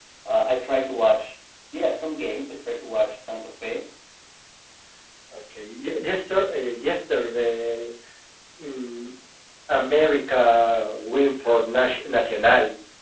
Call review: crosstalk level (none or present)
none